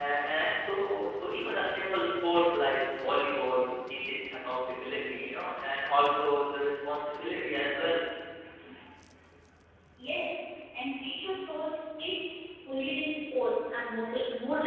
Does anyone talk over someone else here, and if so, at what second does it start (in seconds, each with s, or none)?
none